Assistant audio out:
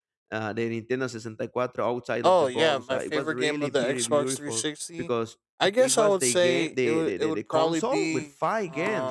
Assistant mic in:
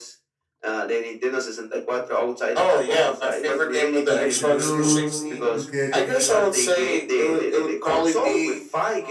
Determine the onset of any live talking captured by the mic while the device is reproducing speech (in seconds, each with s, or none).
4.1 s